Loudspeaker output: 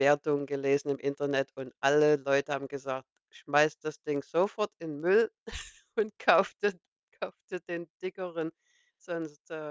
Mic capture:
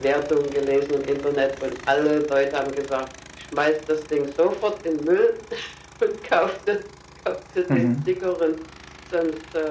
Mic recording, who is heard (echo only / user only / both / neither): both